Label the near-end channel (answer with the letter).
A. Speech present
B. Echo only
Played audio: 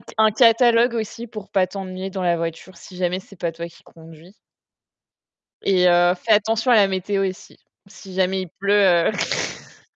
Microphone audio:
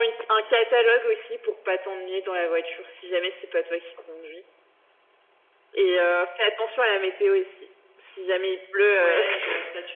A